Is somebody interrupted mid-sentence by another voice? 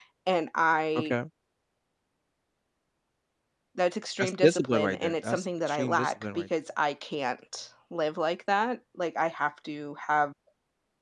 Yes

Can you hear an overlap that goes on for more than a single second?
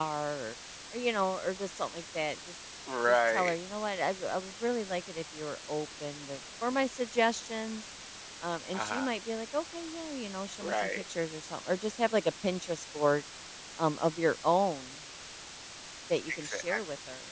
No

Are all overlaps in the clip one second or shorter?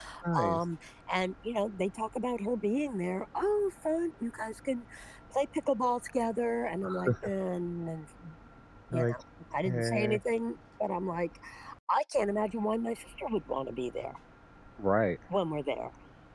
Yes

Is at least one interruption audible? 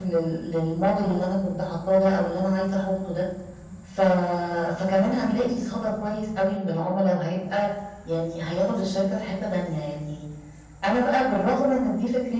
No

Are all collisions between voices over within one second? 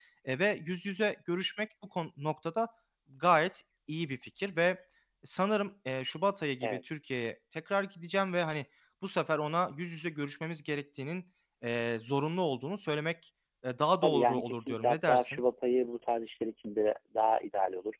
No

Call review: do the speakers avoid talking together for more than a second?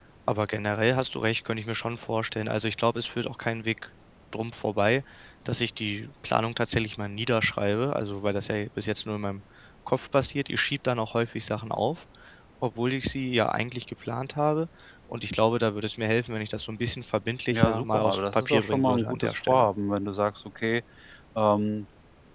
No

